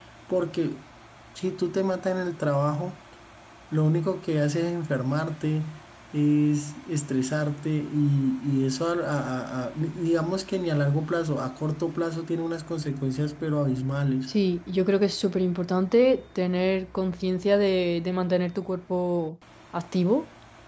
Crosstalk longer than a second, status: none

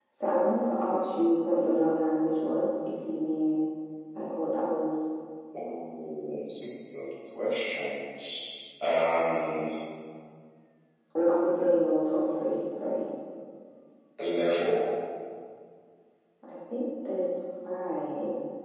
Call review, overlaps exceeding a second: none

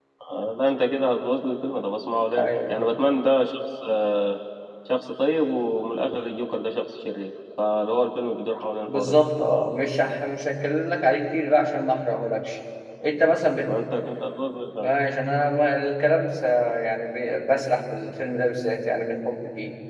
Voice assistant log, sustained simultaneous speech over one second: none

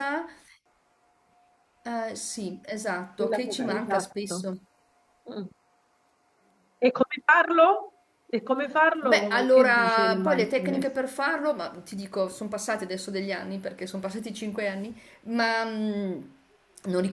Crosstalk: present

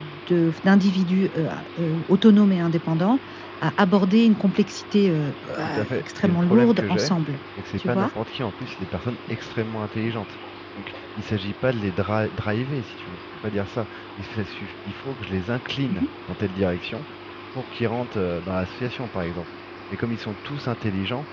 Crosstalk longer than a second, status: present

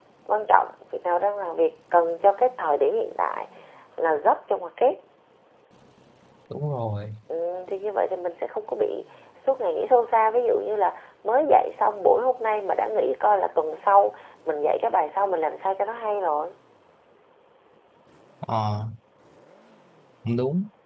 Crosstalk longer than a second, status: none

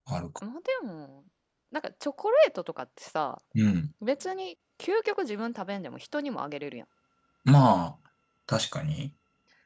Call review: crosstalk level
none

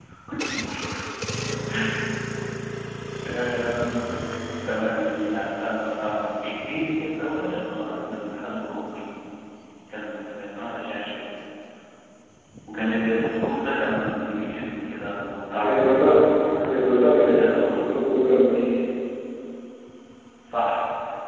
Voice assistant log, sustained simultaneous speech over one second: present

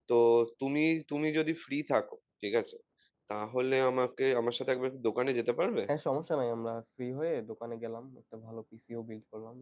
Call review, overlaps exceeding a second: none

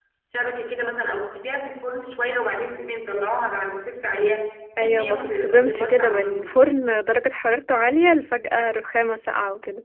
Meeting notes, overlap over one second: present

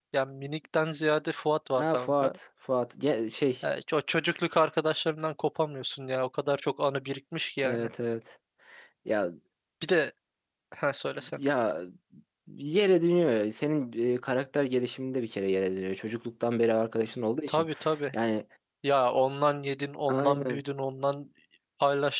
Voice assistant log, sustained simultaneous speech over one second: none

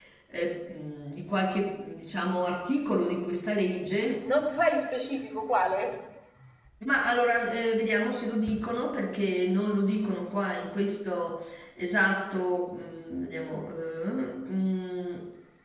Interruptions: none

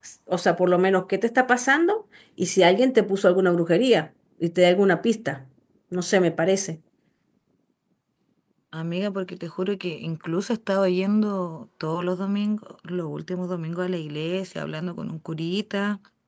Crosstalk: none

